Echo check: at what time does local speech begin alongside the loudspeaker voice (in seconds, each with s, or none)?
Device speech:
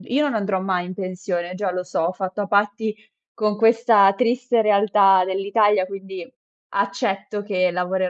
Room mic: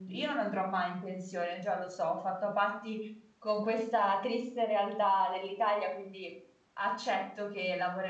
none